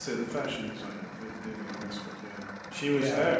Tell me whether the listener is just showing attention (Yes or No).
No